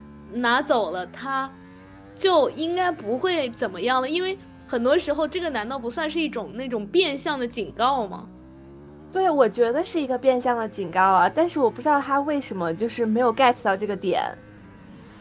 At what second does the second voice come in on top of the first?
none

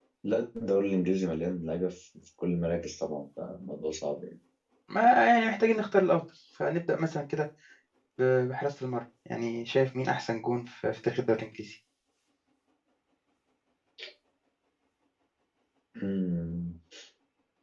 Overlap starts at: none

